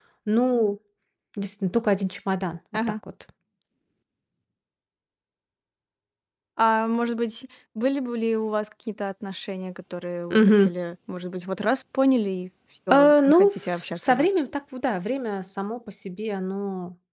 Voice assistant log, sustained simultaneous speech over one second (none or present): present